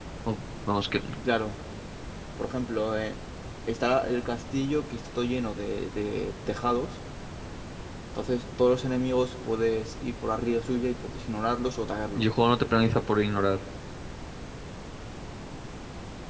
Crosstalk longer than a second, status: none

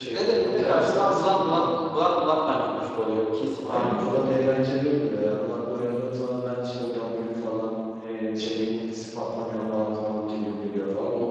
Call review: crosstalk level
present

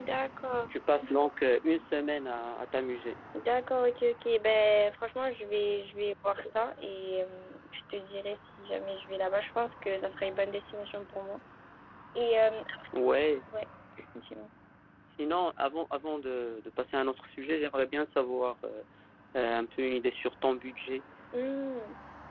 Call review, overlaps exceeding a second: none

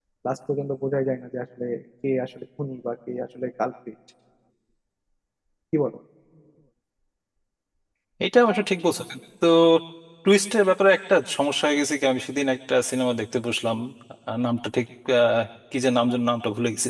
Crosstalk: none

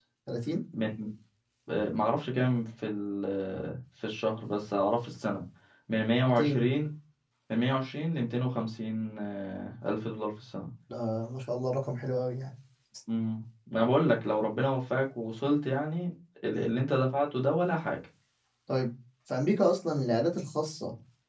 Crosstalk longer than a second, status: none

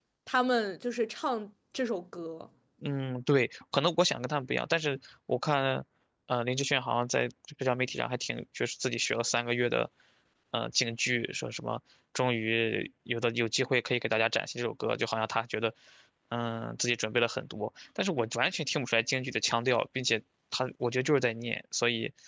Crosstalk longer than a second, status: none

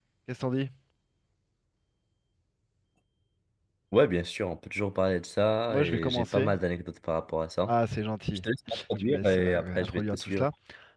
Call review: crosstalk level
present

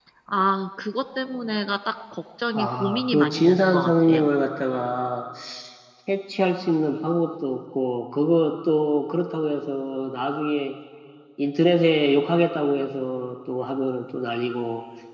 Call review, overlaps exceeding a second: present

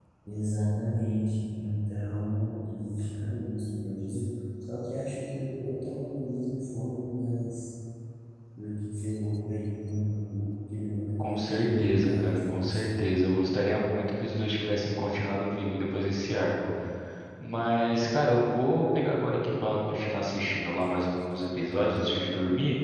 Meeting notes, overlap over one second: present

